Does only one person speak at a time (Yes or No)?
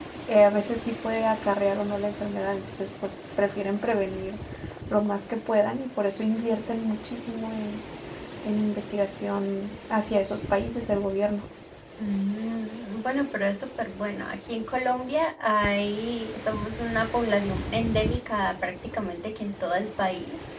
Yes